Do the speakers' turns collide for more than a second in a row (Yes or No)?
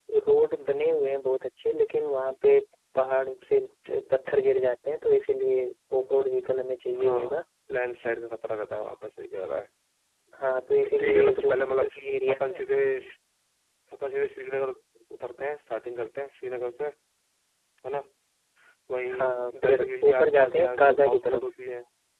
Yes